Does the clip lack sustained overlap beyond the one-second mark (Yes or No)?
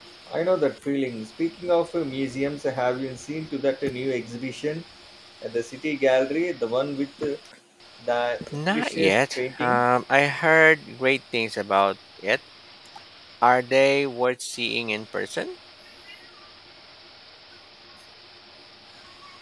No